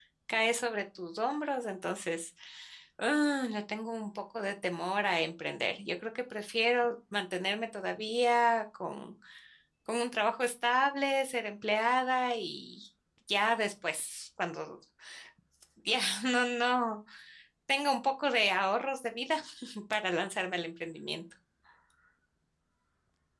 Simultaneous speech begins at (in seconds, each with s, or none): none